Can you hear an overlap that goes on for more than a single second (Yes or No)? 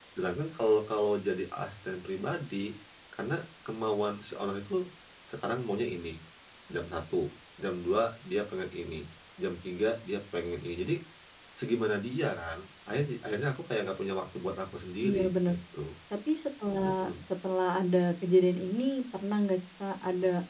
No